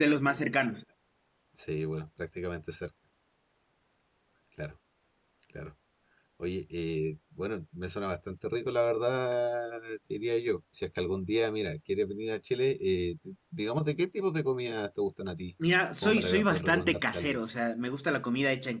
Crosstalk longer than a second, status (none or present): present